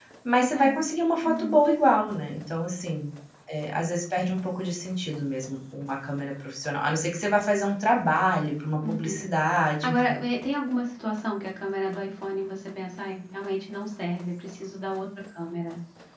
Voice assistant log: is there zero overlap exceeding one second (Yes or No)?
Yes